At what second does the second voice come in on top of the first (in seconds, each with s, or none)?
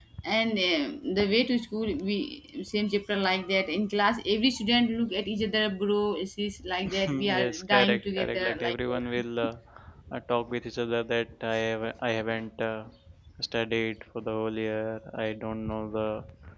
7.0 s